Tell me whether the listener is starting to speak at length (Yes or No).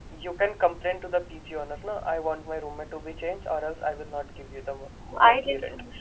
Yes